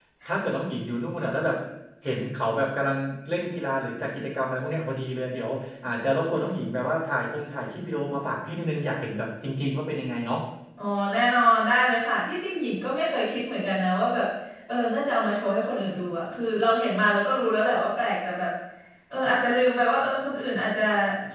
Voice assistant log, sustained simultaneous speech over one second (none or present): none